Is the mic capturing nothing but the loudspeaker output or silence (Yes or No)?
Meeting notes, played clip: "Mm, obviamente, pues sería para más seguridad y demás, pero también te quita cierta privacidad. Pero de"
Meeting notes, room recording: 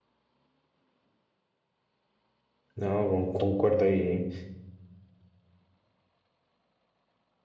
No